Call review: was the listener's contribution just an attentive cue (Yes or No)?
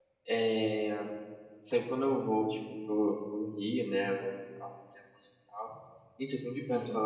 Yes